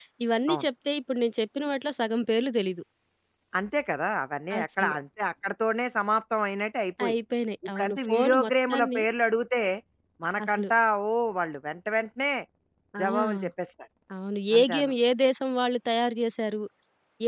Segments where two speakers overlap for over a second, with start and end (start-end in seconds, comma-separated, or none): 7.8-9.0